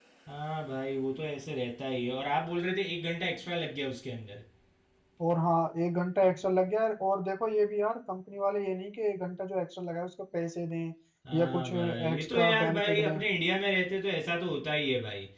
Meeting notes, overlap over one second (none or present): present